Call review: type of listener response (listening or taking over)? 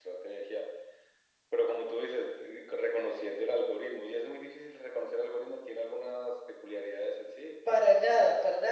taking over